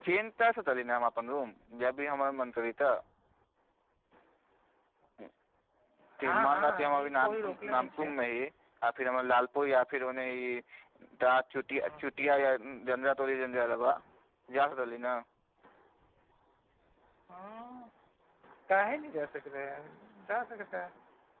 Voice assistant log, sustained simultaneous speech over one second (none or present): present